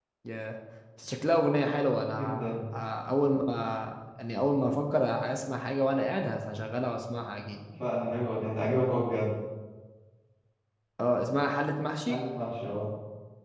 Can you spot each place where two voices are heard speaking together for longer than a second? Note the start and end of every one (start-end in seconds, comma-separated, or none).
none